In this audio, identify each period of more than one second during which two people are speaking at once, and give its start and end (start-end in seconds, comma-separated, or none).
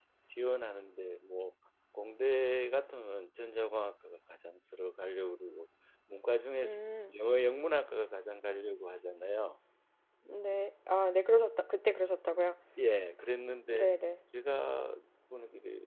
none